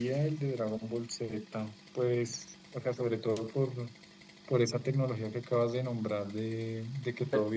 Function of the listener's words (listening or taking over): listening